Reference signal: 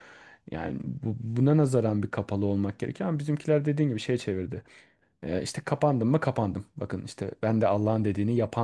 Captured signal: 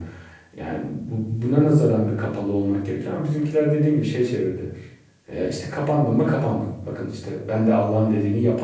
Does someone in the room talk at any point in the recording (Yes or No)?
No